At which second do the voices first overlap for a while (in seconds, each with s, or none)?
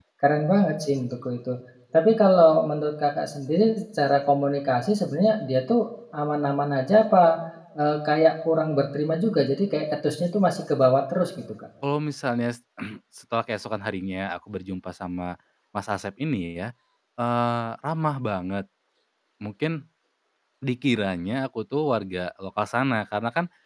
none